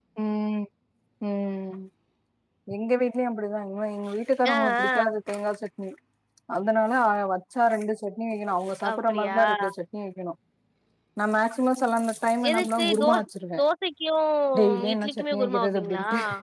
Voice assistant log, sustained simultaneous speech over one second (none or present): present